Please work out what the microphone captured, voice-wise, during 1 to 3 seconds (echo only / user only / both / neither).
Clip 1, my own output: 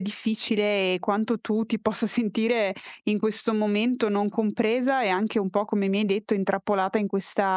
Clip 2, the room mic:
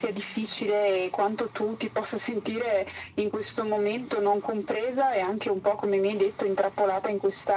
echo only